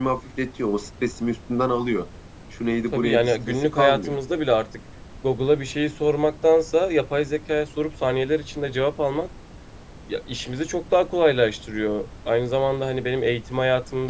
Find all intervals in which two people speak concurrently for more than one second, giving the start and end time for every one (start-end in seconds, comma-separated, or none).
2.9-4.2